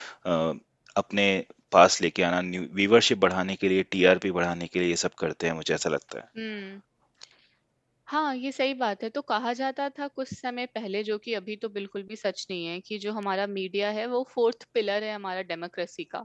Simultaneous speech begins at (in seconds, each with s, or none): none